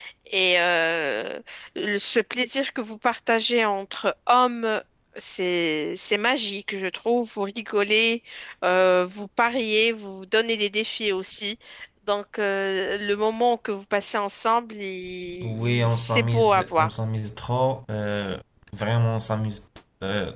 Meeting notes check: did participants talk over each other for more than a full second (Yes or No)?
Yes